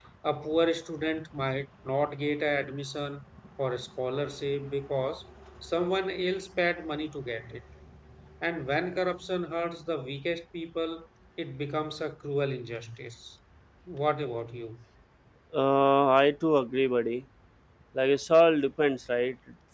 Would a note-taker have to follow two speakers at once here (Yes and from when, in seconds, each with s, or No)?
No